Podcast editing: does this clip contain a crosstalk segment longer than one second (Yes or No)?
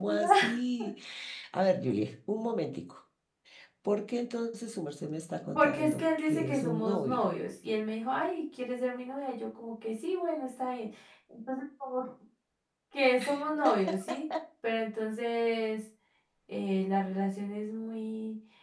Yes